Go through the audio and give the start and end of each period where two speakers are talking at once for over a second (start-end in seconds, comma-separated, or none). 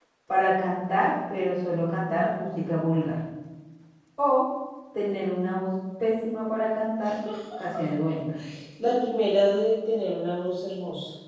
none